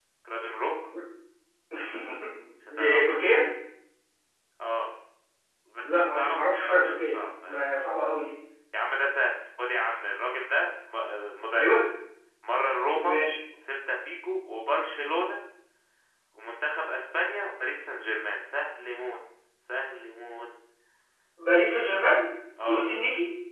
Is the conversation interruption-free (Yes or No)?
No